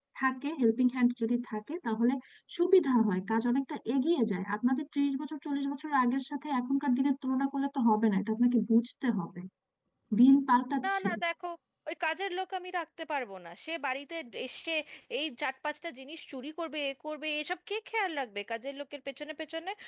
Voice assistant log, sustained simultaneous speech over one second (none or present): none